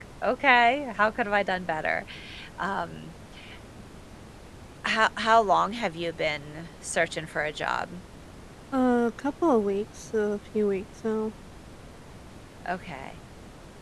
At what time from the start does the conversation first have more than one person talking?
none

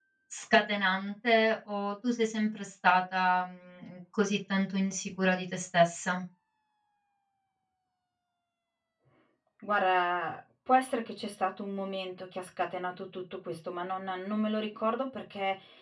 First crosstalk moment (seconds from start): none

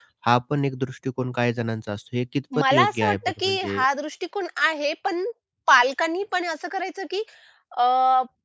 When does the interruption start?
3 s

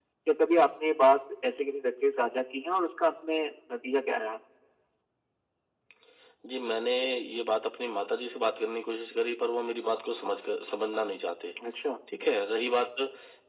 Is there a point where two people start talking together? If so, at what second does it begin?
none

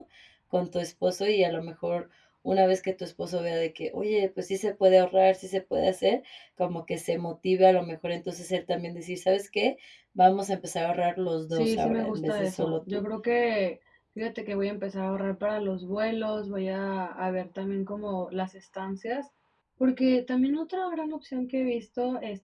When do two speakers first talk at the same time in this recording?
12 s

